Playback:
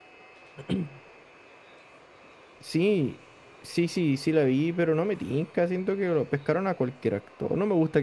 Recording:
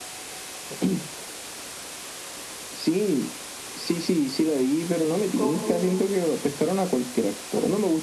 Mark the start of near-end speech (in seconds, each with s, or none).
5.3 s